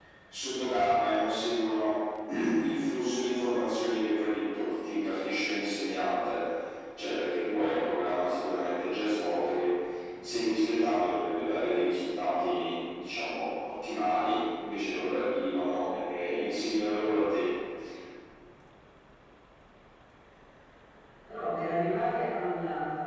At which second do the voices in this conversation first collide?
none

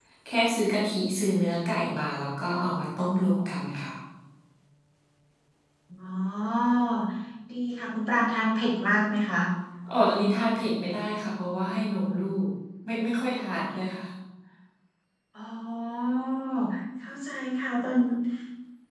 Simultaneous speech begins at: none

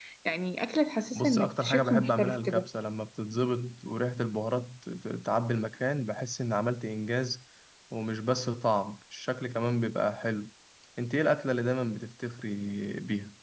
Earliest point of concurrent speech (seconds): 1.2 s

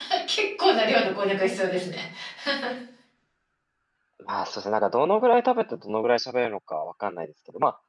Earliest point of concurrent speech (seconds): none

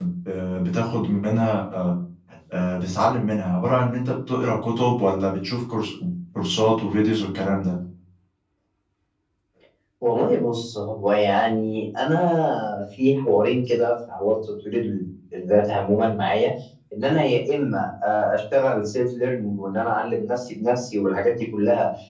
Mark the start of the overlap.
none

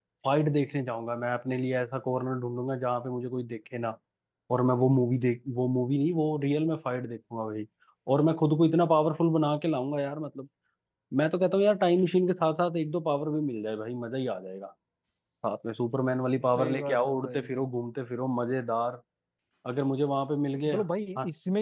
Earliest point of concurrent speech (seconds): 16.6 s

